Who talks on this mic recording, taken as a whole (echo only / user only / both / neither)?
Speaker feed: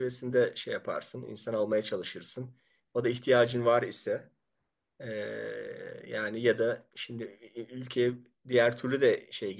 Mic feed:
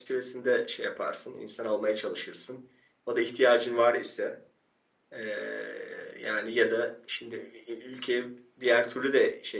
echo only